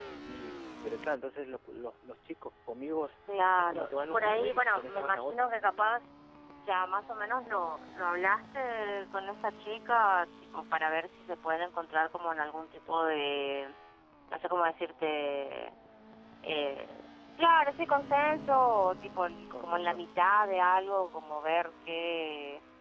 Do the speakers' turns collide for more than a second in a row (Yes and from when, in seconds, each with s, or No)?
Yes, from 3.6 s